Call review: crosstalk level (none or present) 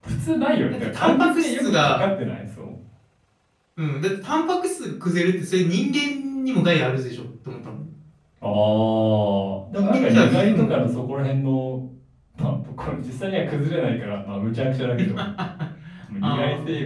present